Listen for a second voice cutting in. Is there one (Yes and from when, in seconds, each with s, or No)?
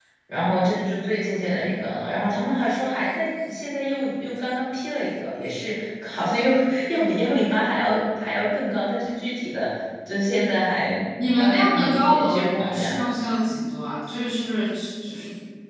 Yes, from 11.2 s